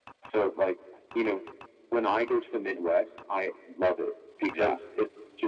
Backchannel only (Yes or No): Yes